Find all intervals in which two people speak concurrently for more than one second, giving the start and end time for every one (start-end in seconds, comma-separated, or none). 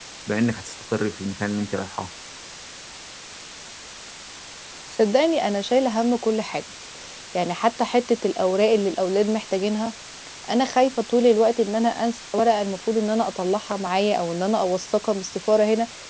none